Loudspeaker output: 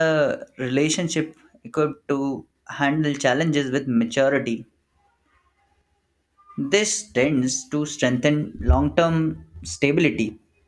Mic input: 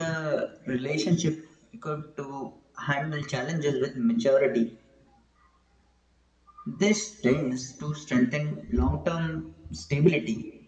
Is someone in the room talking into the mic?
No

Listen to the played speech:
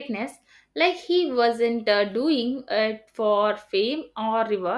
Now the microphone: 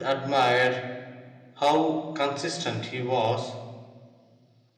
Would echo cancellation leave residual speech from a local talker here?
Yes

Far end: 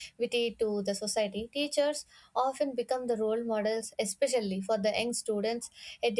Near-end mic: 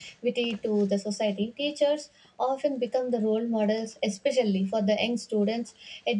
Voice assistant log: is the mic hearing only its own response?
Yes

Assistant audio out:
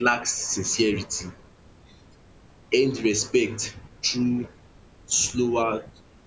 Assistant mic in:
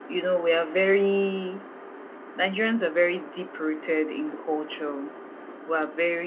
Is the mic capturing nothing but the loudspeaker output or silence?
No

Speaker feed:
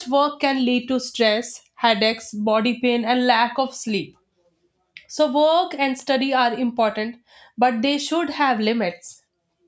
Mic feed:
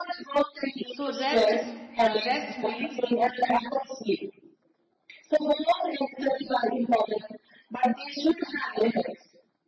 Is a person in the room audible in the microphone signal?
Yes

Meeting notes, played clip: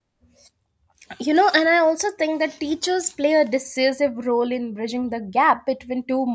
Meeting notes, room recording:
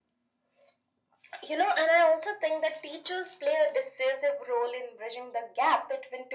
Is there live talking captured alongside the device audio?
No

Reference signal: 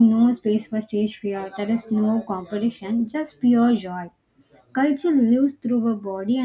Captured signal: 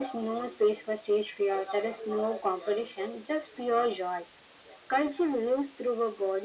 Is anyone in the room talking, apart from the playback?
No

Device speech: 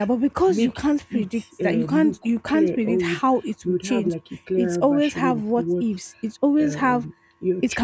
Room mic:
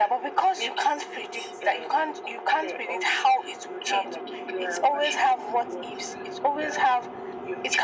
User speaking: No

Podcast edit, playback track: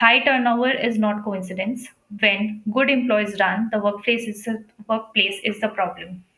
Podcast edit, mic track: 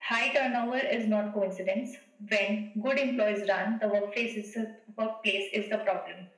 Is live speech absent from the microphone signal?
Yes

